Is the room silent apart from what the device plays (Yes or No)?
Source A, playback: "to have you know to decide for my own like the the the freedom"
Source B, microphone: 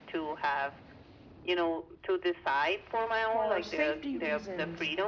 No